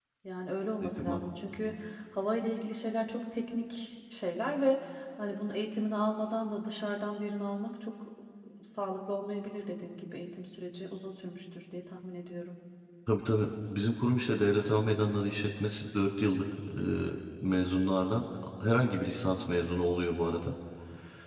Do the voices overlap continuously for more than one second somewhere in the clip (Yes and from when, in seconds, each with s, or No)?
No